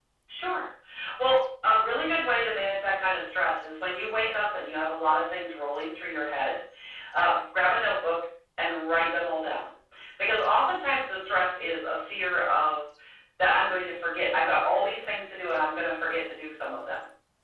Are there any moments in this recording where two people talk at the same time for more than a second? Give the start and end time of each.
none

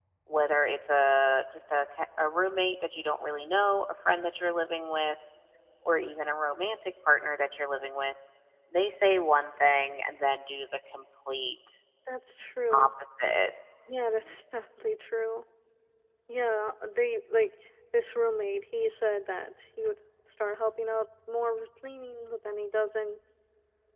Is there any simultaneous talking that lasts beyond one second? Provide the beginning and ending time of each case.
none

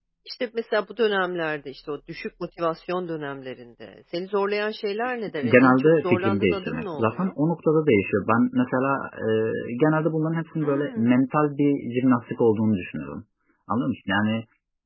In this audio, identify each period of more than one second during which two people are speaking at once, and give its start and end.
5.4-7.3

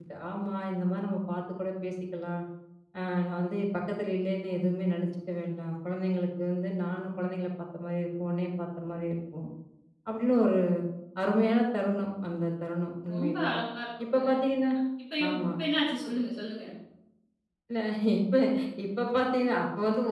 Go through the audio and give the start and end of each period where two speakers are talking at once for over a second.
none

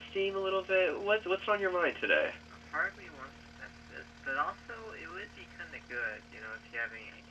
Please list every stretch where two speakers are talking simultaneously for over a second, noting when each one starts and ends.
none

